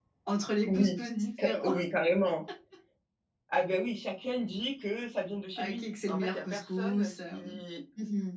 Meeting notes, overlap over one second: present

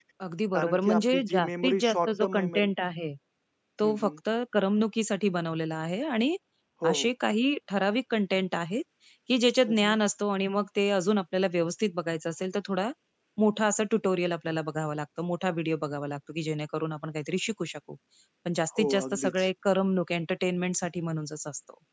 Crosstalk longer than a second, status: present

